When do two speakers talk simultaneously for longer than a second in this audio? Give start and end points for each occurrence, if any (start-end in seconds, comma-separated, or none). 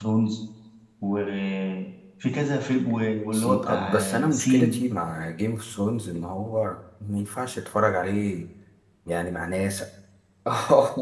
3.3-4.8